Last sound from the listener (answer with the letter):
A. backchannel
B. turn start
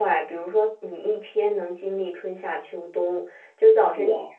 A